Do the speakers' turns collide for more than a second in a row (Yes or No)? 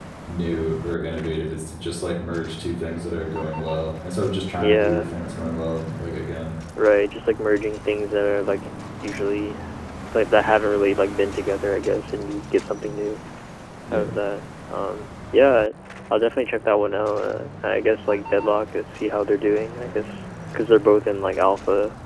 No